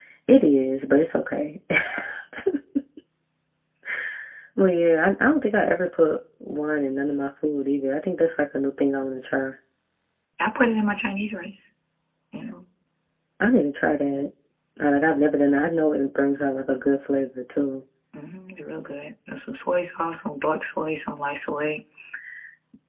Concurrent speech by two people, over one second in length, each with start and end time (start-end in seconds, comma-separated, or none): none